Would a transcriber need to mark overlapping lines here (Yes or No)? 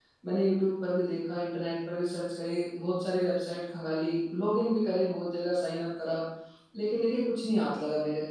No